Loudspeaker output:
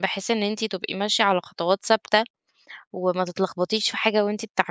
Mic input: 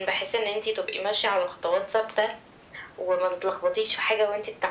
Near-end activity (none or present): none